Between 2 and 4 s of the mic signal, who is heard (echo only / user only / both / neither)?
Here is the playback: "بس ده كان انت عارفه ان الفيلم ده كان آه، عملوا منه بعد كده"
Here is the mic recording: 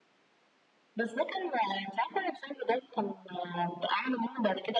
echo only